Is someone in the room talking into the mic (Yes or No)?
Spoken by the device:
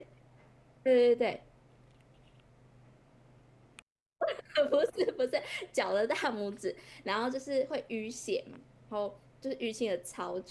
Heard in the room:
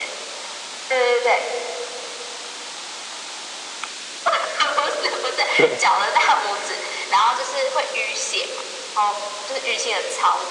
Yes